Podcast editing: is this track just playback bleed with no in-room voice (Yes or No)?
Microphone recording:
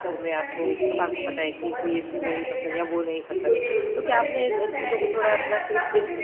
No